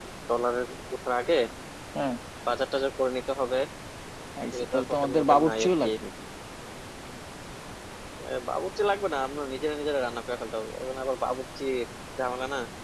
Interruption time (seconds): 4.5 s

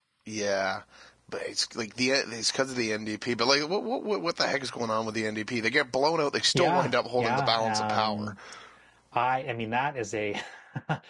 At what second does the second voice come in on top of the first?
6.5 s

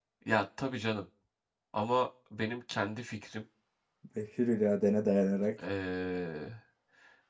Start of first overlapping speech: none

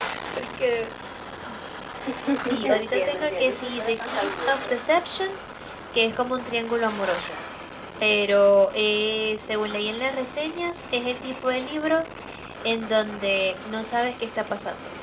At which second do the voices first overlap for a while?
2.6 s

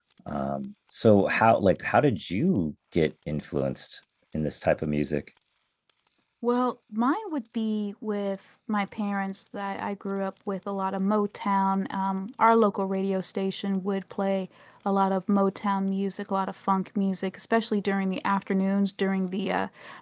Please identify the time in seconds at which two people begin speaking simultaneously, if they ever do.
none

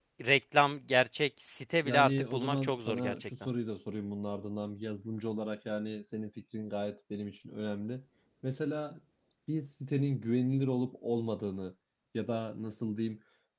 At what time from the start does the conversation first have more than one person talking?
1.8 s

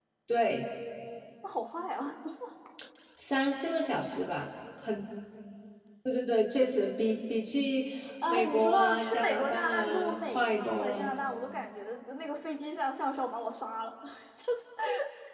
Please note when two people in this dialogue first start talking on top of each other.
8.3 s

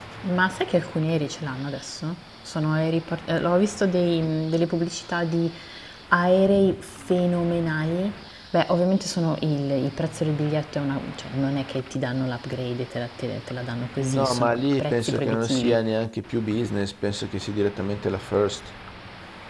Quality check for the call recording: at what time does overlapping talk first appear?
14.0 s

